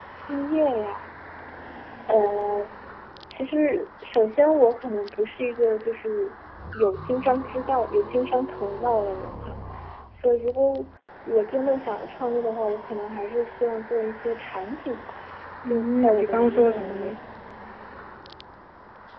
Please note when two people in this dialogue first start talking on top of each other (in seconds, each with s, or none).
15.6 s